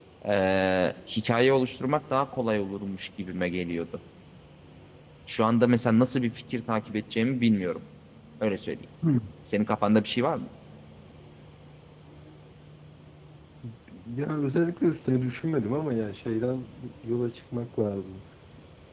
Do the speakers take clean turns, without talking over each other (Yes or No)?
Yes